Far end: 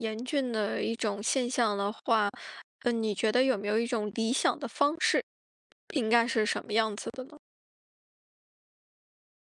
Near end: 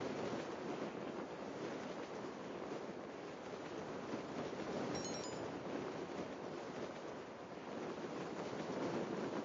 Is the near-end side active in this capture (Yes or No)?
No